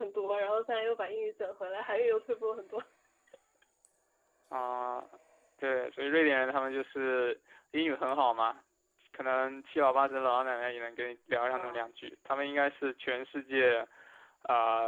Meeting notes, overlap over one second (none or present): none